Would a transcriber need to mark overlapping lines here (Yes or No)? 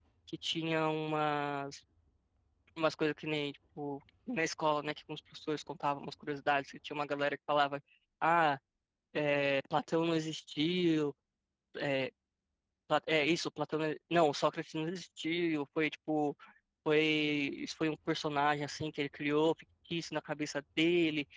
No